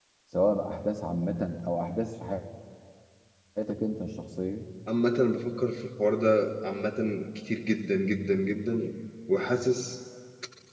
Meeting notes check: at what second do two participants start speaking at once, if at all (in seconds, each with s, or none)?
none